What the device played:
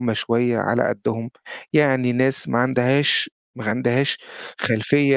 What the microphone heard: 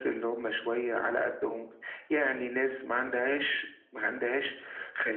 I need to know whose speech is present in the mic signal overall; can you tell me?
echo only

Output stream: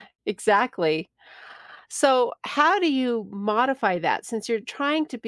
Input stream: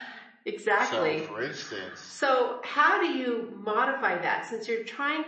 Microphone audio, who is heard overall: both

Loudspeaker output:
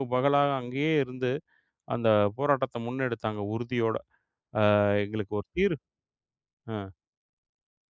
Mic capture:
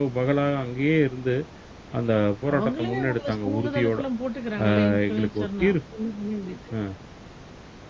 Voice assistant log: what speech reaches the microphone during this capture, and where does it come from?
both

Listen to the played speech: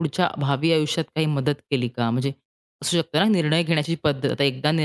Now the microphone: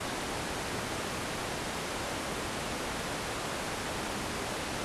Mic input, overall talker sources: neither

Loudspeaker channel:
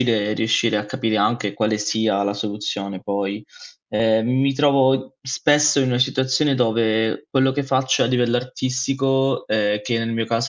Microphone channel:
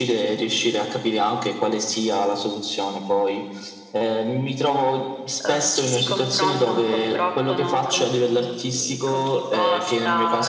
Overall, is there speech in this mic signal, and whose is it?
both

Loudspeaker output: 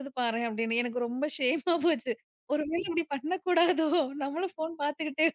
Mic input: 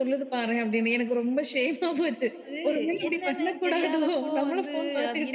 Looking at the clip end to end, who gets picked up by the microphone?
both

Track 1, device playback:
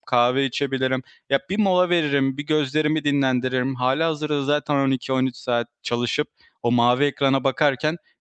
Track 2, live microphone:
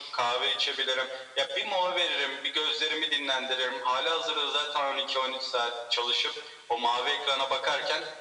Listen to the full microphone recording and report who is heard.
echo only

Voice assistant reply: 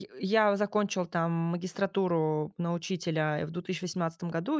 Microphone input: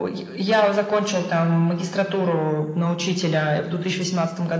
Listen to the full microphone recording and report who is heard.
echo only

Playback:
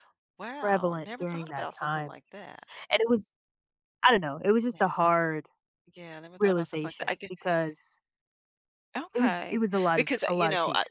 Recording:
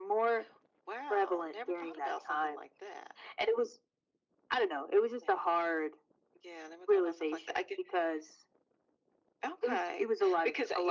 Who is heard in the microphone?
echo only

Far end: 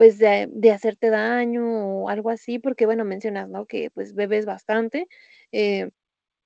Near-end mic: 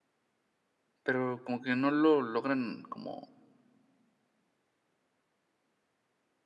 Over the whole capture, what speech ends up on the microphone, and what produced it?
user only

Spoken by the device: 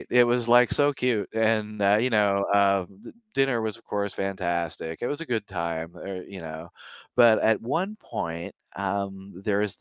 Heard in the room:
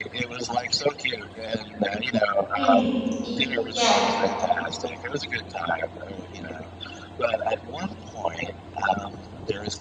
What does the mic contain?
both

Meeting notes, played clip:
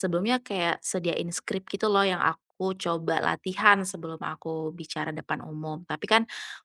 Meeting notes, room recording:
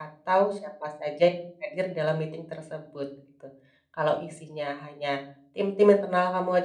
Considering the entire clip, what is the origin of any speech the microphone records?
user only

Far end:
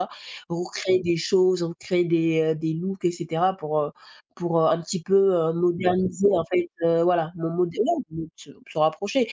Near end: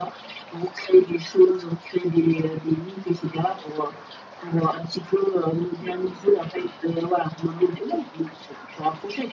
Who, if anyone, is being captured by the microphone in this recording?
echo only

